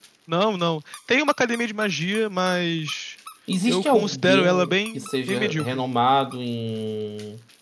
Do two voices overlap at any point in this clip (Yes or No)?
Yes